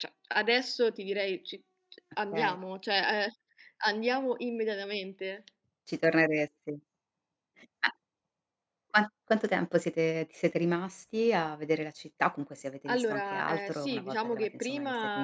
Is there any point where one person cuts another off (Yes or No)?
Yes